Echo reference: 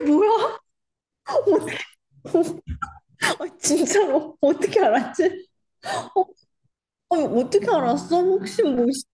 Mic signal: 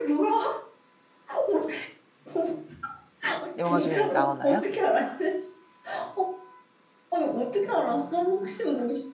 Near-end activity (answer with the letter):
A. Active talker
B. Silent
A